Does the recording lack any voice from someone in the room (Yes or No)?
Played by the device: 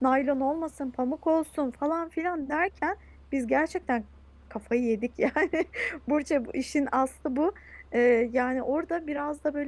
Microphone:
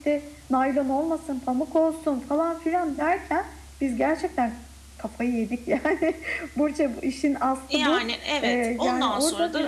No